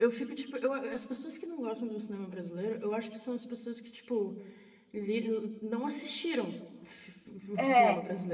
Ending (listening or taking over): listening